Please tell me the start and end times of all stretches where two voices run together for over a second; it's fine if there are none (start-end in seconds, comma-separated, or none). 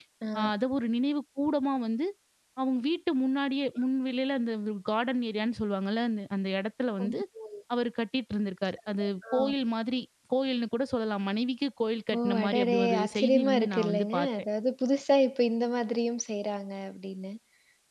12.2-14.3